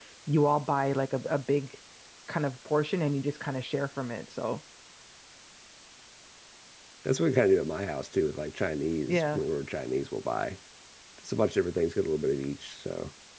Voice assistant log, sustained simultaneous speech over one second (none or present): none